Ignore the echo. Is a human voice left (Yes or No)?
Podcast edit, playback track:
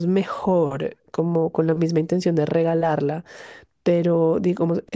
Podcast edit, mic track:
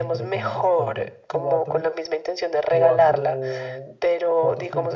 Yes